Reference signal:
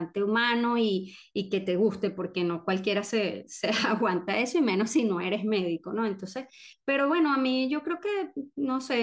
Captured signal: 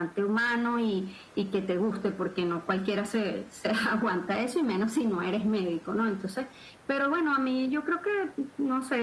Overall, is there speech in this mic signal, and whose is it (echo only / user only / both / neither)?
echo only